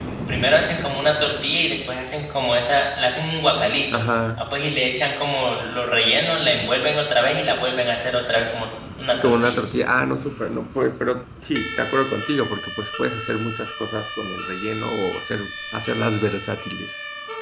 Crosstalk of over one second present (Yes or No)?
No